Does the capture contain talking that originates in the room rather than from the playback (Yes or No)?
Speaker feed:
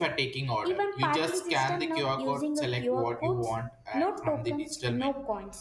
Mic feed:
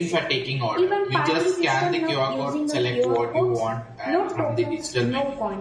No